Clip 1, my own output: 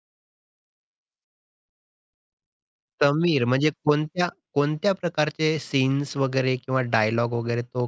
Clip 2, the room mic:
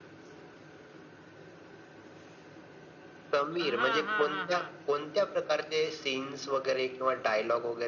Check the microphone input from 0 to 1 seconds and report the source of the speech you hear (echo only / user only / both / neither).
neither